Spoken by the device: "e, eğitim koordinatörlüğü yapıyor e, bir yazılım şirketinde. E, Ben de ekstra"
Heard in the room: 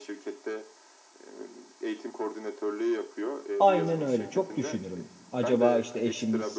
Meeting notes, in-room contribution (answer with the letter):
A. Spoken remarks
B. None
A